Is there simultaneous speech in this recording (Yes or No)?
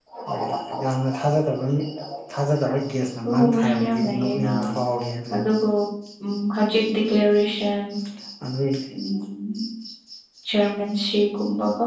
Yes